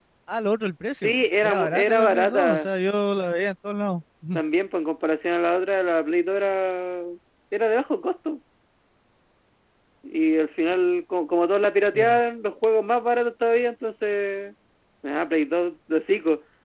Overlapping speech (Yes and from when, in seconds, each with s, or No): Yes, from 1.0 s